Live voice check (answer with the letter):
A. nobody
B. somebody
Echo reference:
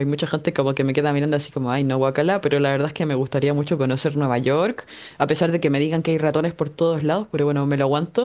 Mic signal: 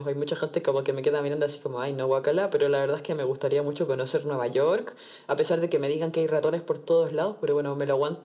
A